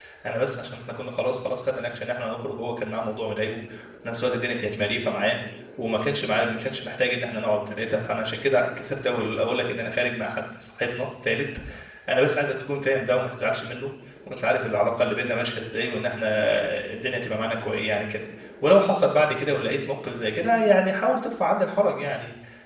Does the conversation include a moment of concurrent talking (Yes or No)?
No